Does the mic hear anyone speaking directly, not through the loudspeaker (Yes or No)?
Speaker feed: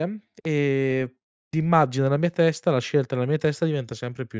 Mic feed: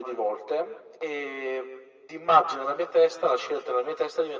No